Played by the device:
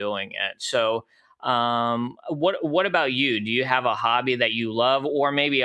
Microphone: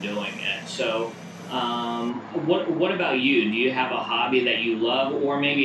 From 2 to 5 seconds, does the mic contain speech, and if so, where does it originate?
echo only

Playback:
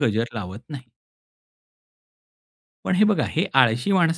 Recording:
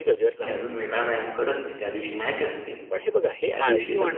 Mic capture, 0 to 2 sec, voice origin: both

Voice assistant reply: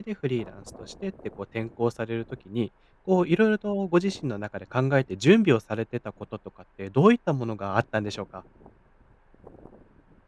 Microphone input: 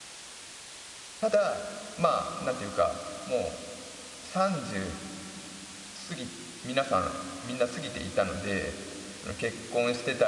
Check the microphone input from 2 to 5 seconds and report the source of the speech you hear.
user only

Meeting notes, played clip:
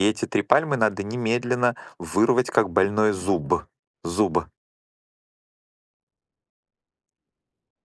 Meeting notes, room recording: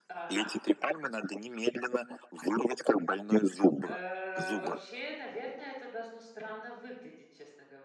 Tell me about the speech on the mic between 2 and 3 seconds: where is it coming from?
echo only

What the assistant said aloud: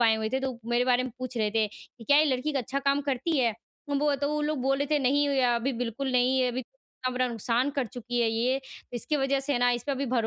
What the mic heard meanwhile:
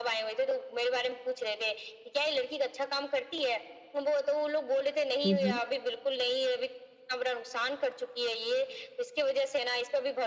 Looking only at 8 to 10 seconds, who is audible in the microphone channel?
echo only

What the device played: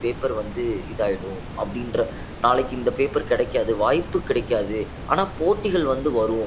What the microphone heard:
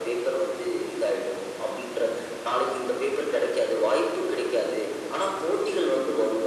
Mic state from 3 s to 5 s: echo only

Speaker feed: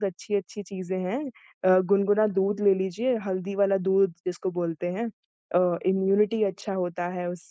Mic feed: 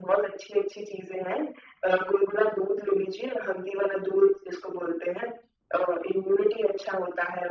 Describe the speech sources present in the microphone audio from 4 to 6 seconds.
echo only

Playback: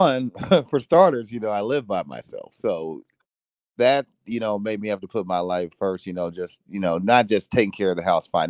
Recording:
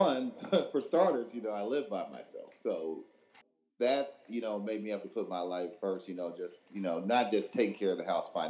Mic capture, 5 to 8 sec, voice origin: echo only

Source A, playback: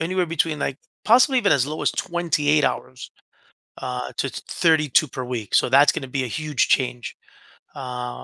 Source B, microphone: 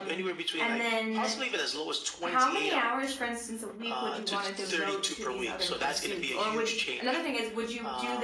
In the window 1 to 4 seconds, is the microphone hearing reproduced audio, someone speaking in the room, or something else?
both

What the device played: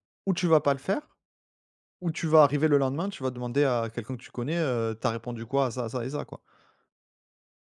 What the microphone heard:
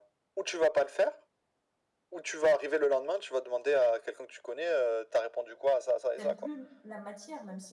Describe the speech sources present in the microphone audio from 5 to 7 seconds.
both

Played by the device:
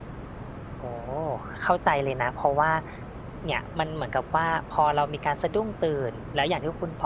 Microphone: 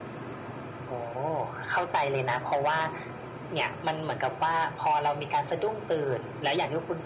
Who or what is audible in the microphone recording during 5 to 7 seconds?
echo only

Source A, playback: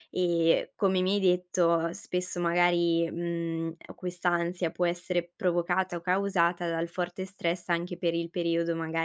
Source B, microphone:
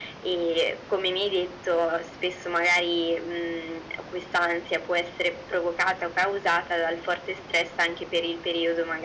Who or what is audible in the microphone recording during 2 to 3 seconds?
echo only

